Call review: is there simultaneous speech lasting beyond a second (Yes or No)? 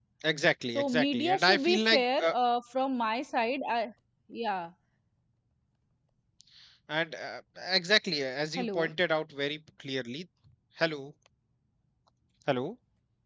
Yes